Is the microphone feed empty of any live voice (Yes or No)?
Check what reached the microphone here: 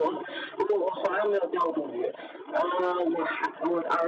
Yes